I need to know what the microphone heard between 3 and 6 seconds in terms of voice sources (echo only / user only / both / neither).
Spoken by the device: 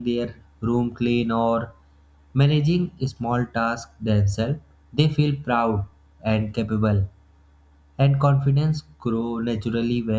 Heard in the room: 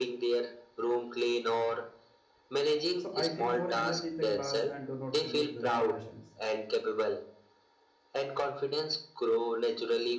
both